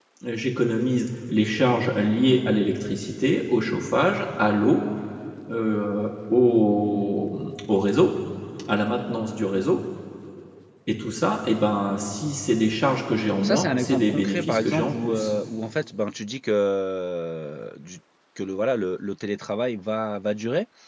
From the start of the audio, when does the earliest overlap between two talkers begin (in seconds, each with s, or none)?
13.3 s